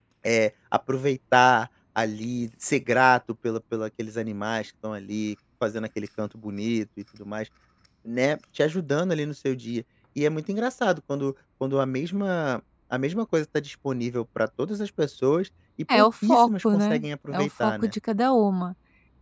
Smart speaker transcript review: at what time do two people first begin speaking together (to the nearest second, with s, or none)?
16 s